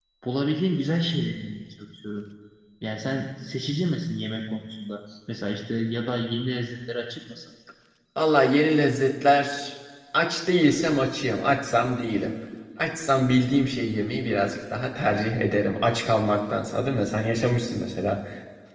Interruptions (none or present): none